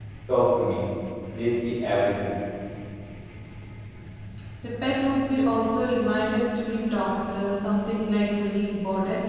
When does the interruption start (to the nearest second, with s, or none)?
none